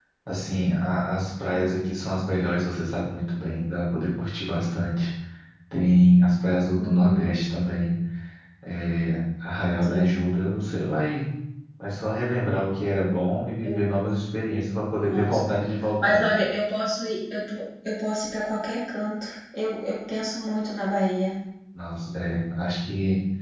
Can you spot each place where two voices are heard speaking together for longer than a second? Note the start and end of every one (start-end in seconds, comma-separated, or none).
none